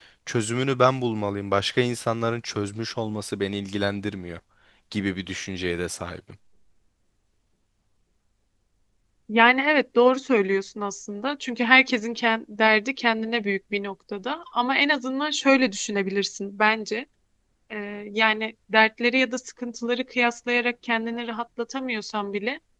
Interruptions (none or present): none